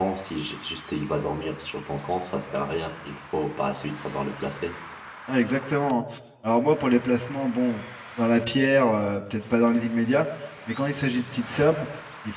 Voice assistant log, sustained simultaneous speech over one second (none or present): none